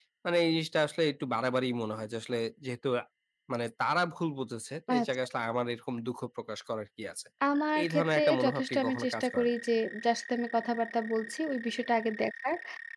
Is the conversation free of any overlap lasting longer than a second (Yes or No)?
No